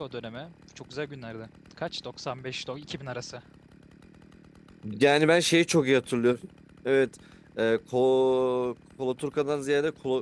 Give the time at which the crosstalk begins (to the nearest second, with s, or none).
none